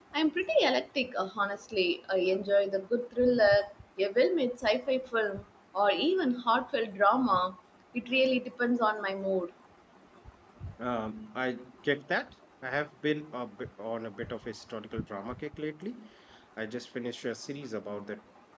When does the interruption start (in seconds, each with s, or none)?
none